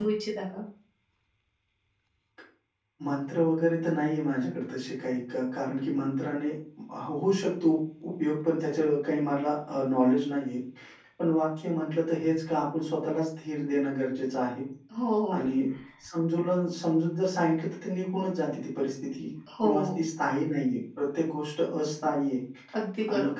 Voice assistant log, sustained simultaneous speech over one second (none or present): none